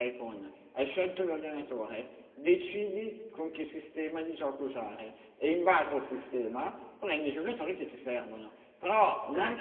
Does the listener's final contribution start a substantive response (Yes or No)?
No